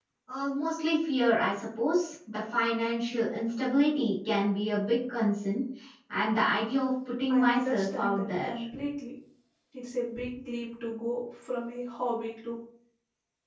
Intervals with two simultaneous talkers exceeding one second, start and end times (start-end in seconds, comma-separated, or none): 7.3-8.5